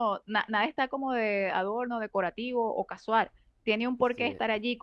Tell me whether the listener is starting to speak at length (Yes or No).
No